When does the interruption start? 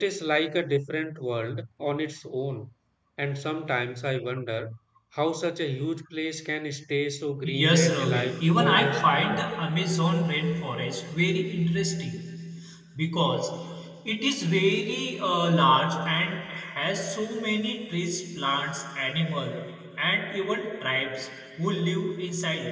7 s

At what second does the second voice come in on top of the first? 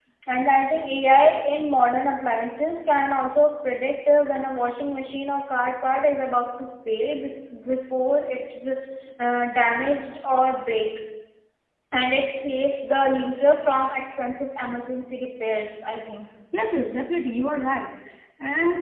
none

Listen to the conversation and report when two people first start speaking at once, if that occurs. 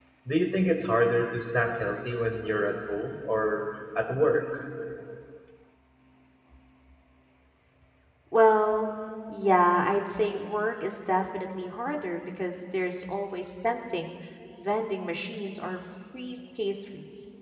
none

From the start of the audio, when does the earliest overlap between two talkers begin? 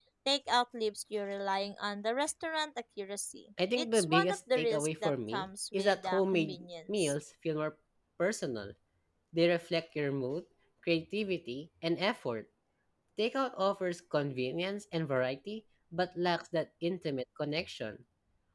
4 s

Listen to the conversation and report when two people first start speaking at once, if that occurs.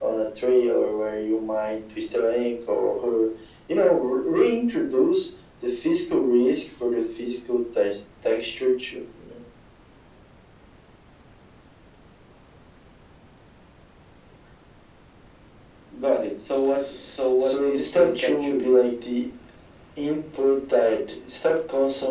17 s

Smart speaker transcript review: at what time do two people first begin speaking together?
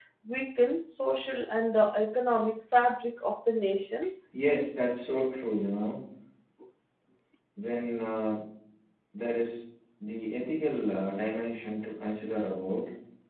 none

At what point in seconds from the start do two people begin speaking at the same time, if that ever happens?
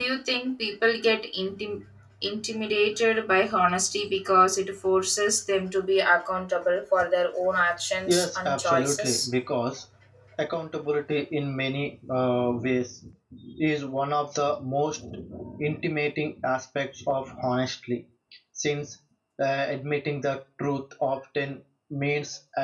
8 s

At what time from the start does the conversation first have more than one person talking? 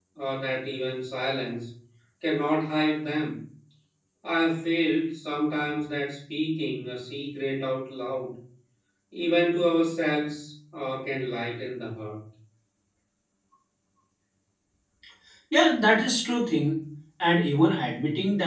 none

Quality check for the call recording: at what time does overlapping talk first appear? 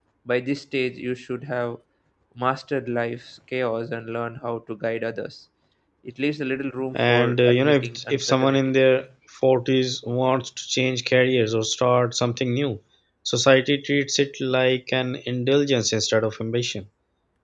7 s

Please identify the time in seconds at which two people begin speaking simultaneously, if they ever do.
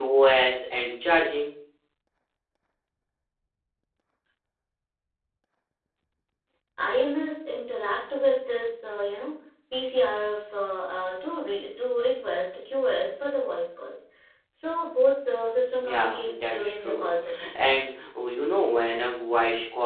16 s

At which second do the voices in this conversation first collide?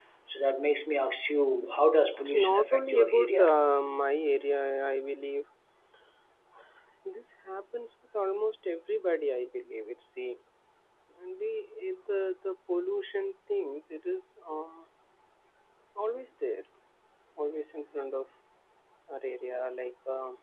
2 s

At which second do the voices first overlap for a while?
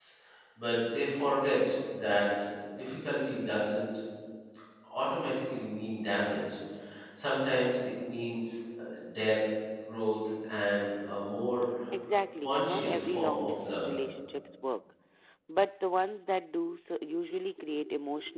12 s

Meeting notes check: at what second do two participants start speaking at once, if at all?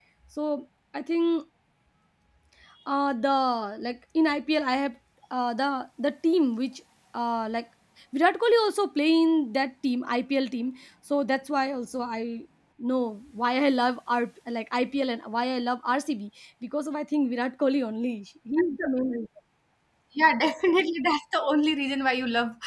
none

